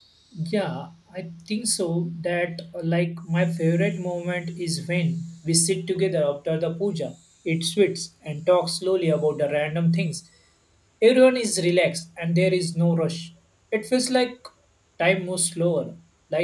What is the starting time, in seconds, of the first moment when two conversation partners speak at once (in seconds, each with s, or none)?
none